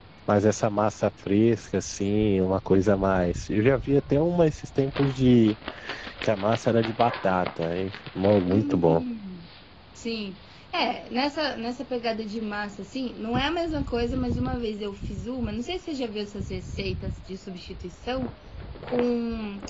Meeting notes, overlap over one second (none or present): none